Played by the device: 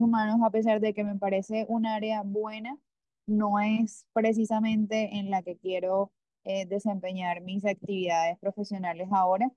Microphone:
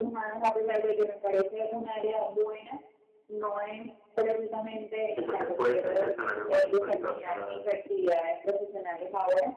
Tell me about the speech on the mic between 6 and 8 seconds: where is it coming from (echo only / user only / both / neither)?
both